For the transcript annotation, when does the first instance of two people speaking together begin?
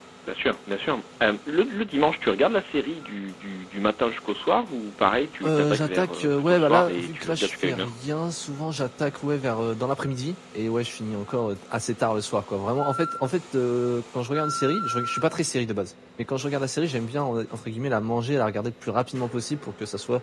5.4 s

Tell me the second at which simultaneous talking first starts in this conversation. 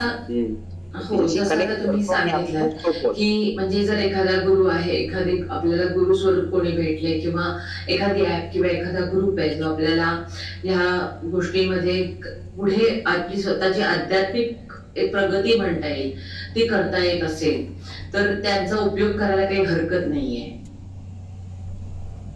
1.1 s

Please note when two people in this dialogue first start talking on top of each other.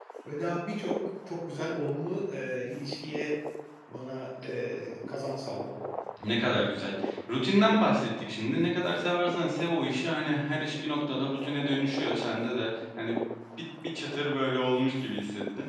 none

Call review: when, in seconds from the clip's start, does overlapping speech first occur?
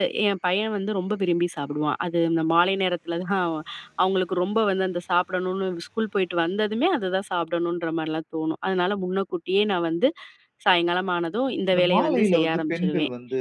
11.7 s

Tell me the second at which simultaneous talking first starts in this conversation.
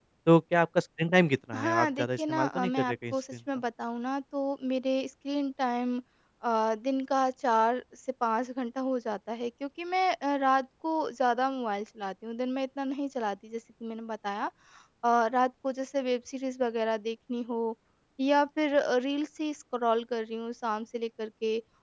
1.5 s

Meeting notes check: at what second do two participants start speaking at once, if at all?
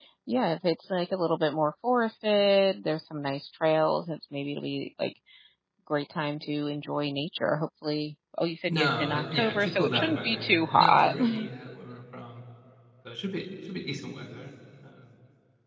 8.7 s

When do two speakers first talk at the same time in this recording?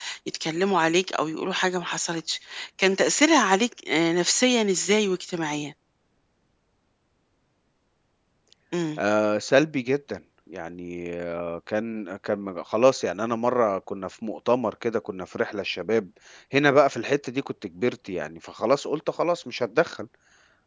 none

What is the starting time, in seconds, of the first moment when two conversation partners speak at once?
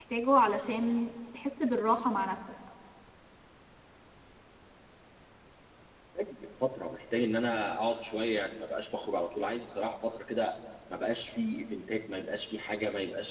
none

